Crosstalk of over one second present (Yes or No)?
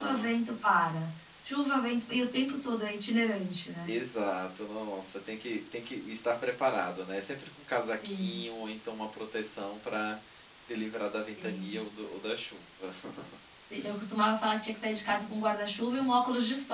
No